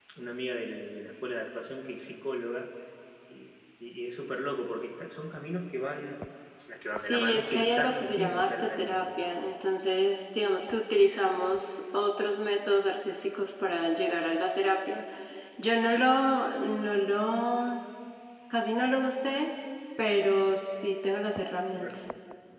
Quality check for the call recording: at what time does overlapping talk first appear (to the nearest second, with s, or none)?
7 s